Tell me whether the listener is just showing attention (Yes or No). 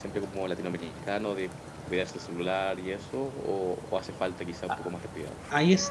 No